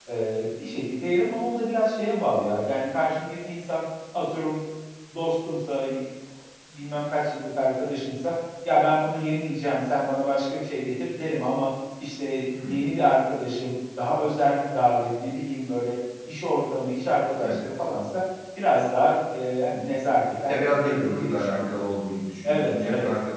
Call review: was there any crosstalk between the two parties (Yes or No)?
Yes